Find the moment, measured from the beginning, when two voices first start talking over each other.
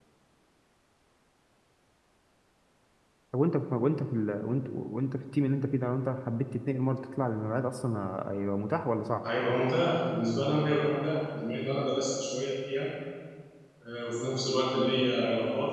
none

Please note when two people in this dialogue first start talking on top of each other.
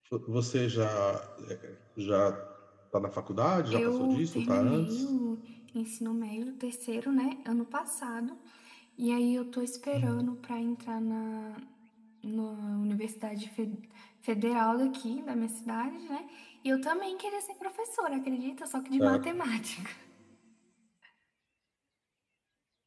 4 s

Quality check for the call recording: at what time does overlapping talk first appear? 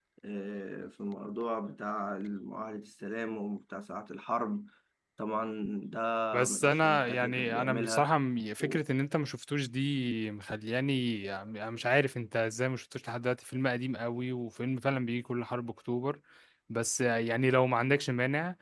6 s

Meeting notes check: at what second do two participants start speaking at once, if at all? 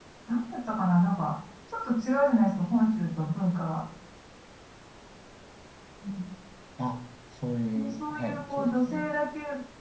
8 s

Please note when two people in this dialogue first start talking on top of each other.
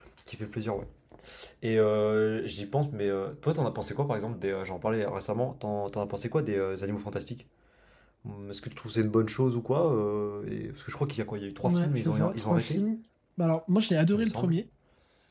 12 s

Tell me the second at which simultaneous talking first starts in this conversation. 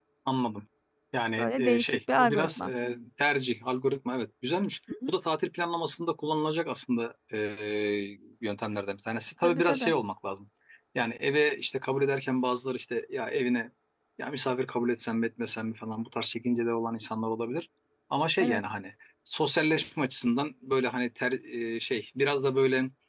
1 s

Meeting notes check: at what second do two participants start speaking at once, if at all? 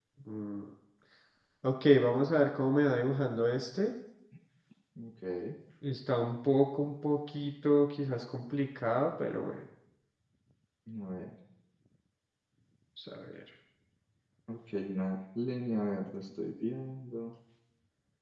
none

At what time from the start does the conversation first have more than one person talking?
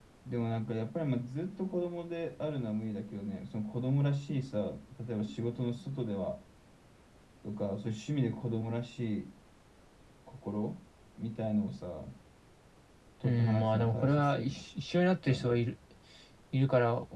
13 s

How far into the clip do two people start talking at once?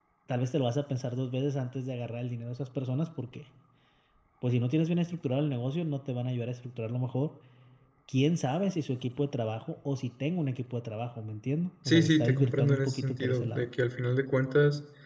12 s

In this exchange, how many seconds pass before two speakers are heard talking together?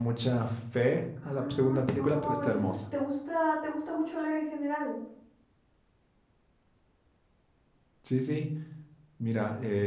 1 s

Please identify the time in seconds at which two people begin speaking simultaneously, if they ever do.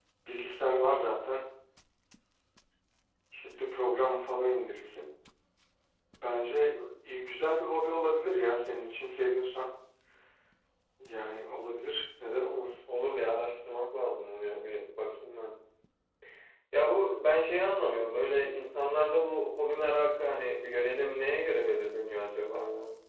none

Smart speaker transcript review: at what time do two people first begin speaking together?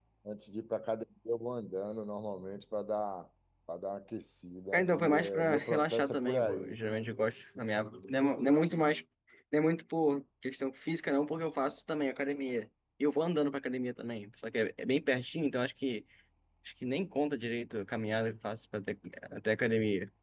5 s

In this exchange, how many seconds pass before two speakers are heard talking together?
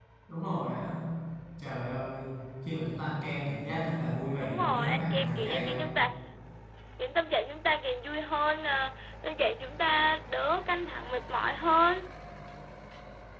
4 s

